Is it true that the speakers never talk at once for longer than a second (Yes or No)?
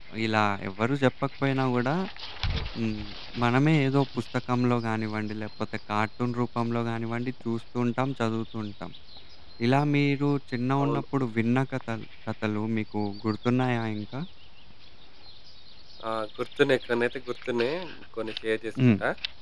Yes